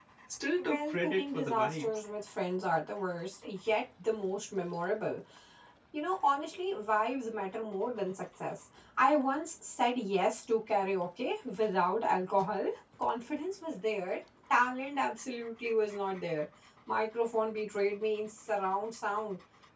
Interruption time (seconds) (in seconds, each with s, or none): 0.6 s